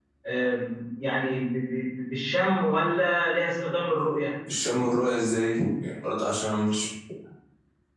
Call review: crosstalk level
none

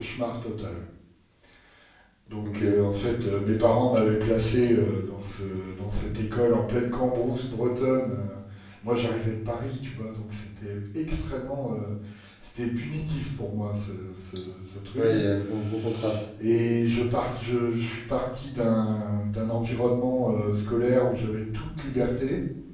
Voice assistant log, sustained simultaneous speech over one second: none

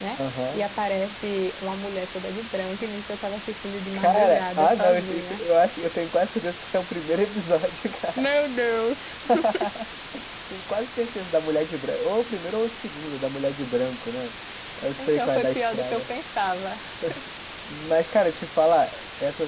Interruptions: present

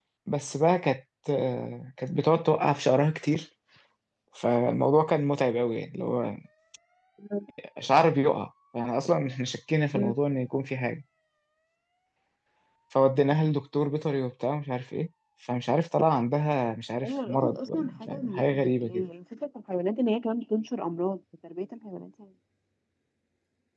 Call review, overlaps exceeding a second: present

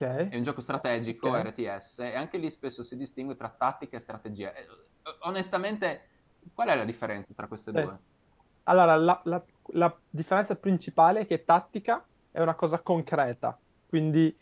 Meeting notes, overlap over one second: none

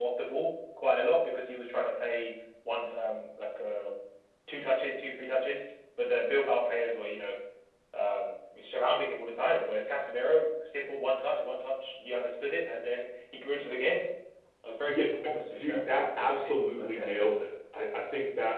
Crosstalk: present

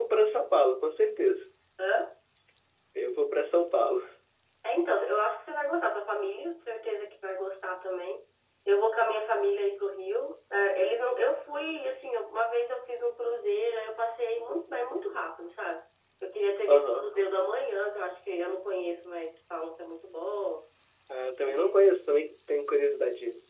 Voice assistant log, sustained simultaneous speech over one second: none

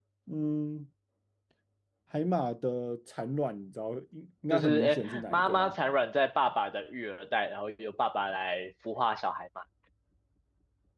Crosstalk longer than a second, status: present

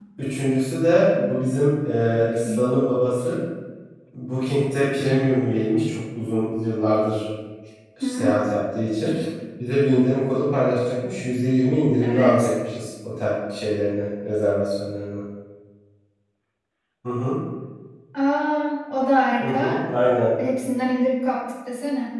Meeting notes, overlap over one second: none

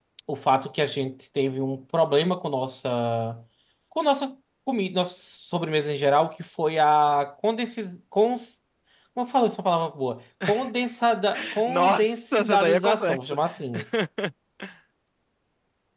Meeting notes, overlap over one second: present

